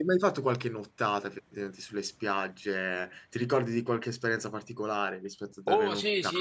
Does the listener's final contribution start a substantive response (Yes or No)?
Yes